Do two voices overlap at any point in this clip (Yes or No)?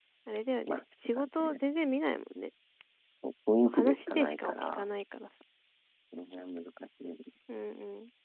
Yes